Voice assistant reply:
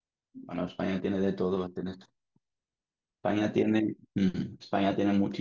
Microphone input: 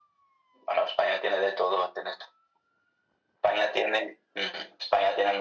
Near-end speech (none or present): none